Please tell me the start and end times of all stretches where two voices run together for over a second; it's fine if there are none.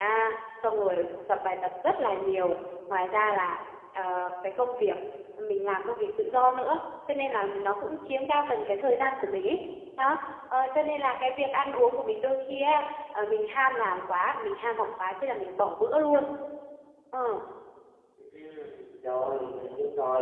none

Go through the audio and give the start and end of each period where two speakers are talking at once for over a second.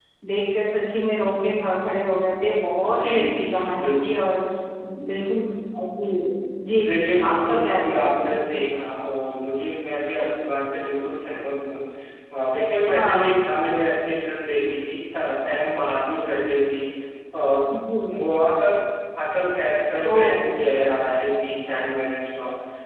2.9-4.1, 6.8-8.3

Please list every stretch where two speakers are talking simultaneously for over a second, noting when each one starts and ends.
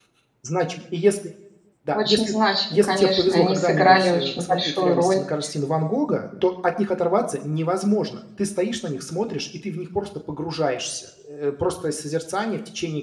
2.7-5.2

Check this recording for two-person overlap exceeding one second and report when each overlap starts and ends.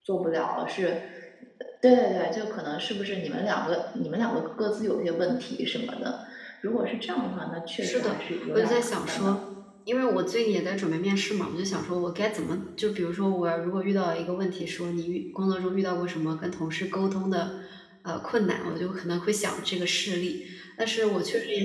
7.8-9.3

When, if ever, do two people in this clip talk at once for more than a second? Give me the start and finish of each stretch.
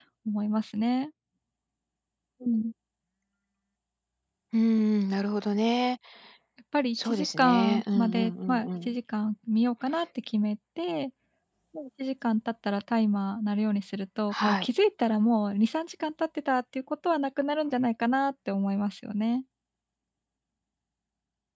6.9-9.0

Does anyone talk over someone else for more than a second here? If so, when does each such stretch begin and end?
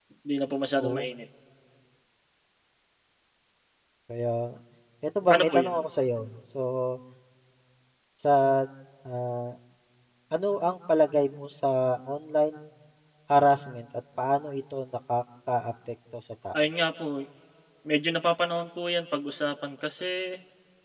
none

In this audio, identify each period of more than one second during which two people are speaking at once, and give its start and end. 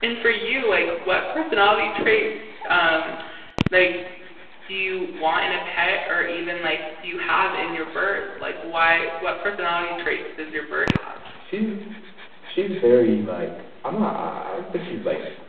none

